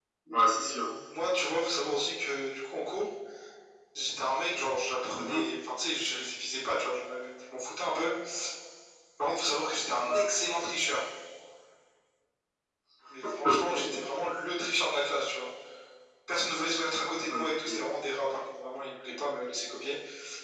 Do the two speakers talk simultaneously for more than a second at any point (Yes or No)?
No